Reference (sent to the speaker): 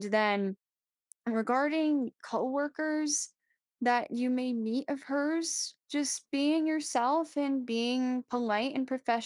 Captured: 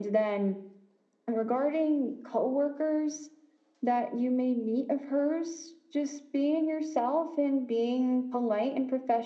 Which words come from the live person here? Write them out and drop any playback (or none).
none